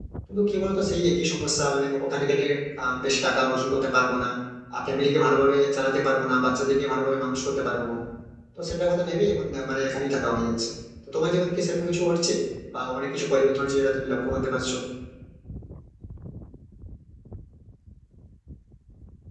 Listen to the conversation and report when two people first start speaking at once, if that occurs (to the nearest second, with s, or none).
none